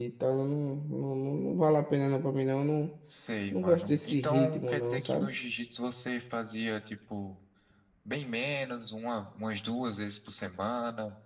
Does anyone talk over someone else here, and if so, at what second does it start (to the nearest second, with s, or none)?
4 s